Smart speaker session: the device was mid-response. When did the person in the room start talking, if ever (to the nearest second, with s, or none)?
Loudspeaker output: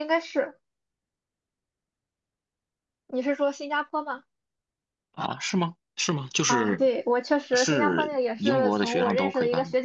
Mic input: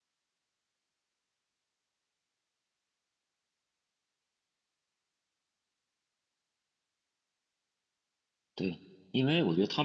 9 s